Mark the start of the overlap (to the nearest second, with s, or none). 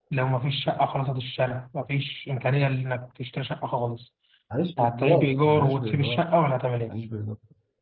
5 s